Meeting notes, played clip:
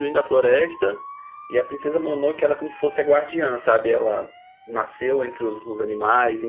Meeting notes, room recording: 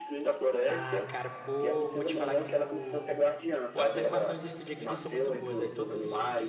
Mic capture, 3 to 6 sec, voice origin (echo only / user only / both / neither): both